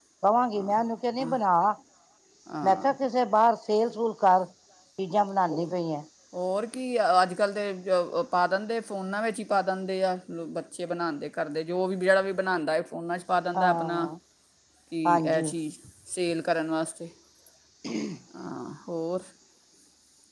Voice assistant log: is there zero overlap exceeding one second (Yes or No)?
Yes